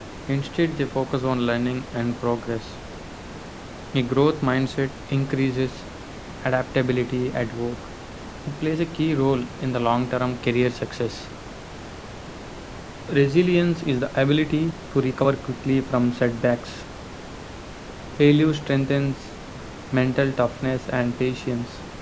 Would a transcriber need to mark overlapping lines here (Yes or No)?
No